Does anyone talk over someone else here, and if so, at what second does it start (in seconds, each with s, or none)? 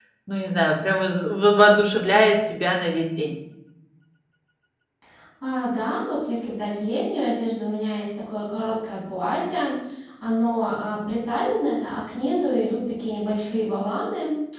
none